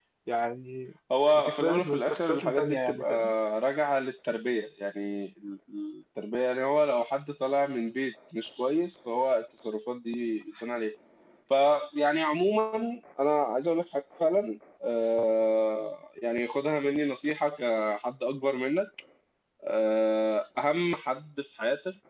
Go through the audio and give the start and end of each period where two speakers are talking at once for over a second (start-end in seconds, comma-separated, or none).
1.3-3.1